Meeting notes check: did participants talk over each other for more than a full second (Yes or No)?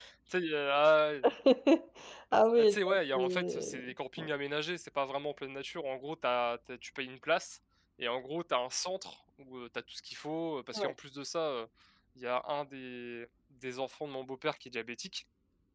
Yes